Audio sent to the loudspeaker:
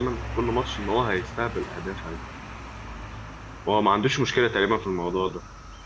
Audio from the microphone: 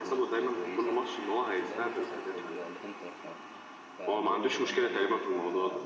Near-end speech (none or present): present